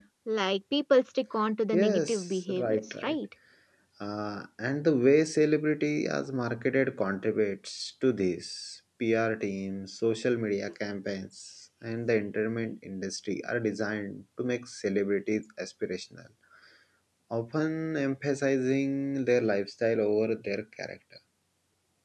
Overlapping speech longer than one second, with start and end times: 1.7-3.1

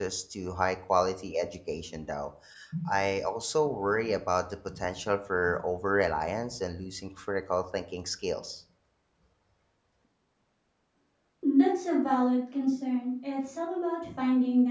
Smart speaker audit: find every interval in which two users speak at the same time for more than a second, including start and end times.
none

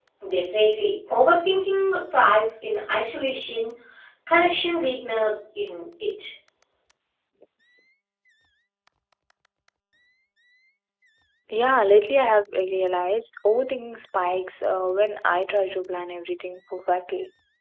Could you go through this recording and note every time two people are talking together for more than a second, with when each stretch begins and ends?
none

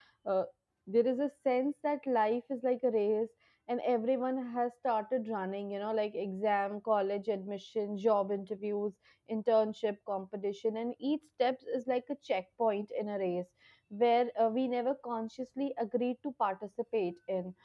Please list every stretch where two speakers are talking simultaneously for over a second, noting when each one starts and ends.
none

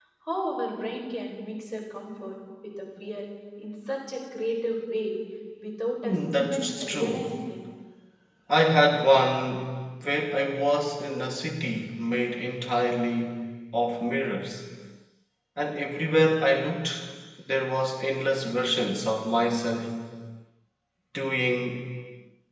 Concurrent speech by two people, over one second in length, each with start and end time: 6.0-7.3

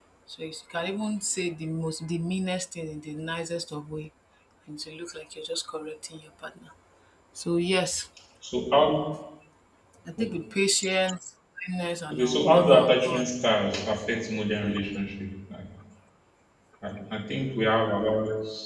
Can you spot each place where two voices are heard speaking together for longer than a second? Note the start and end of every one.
12.1-13.3

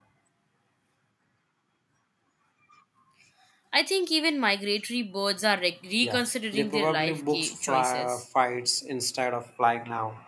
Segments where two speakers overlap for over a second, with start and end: 6.0-8.2

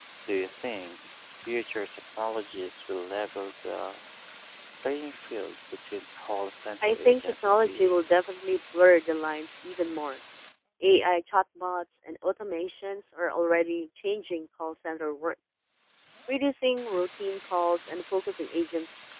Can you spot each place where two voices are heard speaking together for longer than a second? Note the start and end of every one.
6.8-8.2

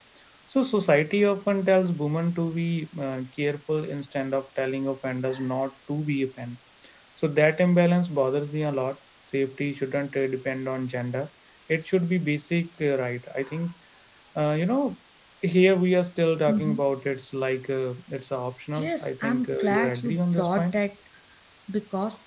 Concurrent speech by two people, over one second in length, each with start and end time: 18.8-20.8

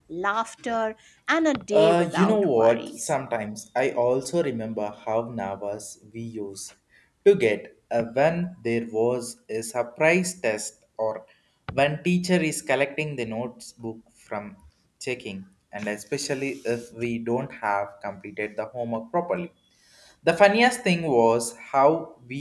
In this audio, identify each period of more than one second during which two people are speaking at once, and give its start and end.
1.7-3.1

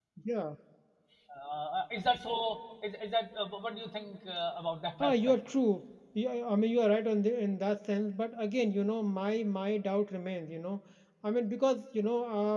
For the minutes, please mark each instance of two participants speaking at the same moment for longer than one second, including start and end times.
none

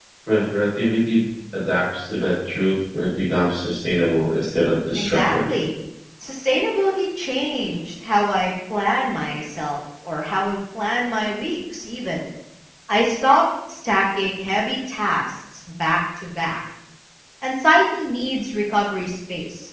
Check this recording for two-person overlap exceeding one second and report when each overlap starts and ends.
none

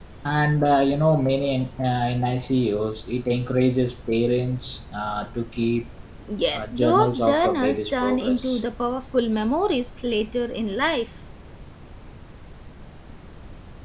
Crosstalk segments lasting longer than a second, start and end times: 6.5-8.6

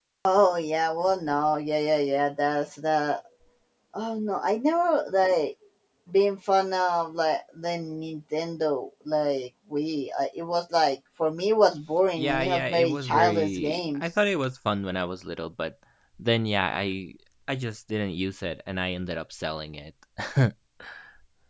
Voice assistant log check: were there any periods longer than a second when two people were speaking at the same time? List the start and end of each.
12.2-14.0

